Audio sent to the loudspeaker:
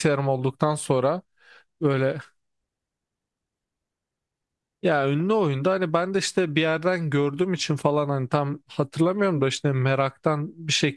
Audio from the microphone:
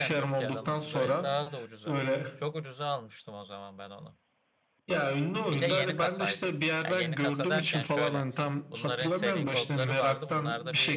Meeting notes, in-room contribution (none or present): present